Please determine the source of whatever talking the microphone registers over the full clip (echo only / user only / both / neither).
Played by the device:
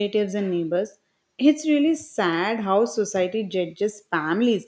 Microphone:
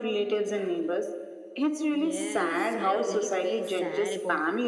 both